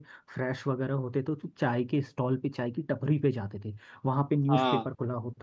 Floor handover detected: No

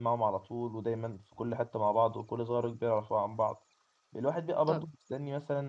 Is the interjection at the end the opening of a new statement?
No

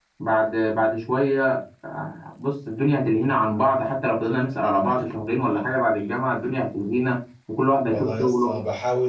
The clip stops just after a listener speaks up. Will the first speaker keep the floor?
No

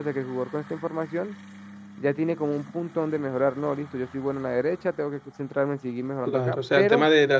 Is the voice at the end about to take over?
Yes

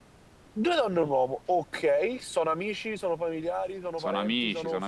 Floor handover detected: Yes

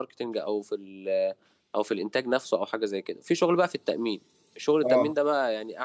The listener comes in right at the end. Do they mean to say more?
No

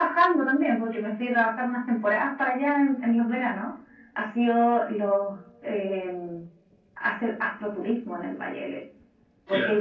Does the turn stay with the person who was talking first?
Yes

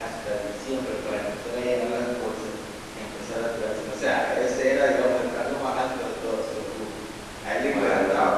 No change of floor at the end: Yes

